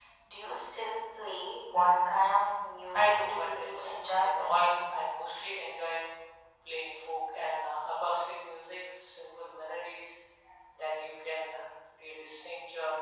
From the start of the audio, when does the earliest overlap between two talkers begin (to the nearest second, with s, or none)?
3 s